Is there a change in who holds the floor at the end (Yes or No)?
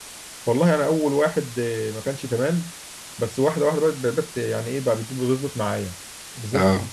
No